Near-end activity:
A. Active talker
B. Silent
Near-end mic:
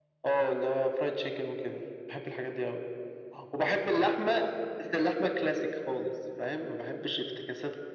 B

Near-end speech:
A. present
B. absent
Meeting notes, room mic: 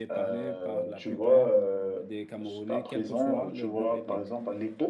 A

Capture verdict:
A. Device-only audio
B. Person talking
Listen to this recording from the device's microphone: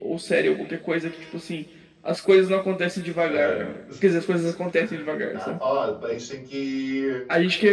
B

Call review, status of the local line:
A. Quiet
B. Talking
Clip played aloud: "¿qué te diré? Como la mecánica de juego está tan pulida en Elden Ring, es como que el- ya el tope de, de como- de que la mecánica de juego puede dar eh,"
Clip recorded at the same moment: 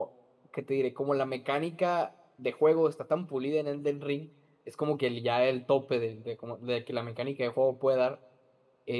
A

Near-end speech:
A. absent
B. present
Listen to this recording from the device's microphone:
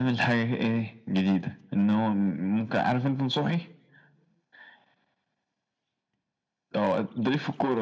A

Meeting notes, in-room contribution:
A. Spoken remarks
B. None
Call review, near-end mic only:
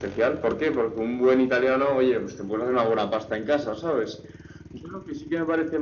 B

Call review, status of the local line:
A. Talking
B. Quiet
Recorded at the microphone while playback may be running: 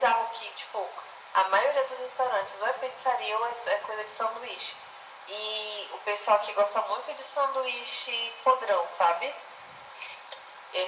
B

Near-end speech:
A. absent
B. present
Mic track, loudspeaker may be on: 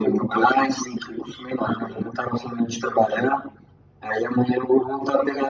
A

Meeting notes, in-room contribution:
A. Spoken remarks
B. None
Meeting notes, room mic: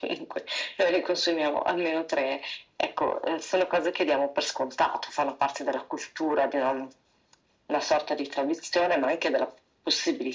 B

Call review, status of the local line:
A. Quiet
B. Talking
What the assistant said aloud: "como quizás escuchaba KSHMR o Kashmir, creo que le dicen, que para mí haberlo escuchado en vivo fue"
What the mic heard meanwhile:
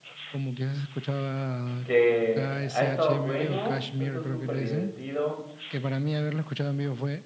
B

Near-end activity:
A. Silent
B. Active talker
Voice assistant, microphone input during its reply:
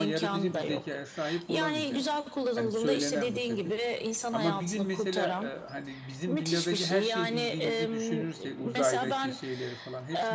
B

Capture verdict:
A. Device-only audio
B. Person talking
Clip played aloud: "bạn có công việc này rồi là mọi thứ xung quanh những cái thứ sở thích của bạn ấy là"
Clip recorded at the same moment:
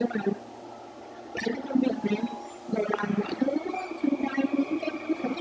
A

